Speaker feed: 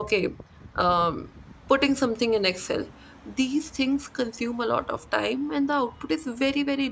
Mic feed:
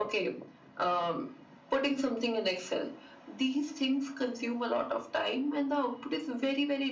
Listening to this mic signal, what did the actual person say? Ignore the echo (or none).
none